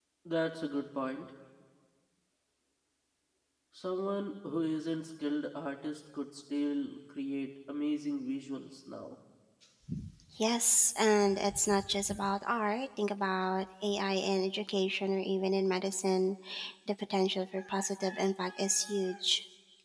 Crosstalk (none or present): none